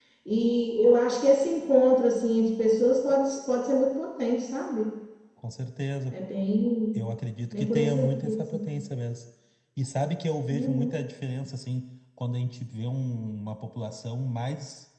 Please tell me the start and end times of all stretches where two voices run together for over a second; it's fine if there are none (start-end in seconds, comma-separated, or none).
7.5-8.7